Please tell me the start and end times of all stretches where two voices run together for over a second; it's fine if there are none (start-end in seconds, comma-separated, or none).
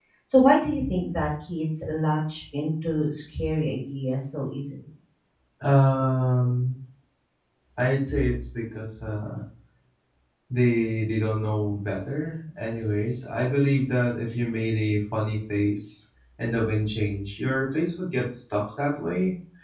none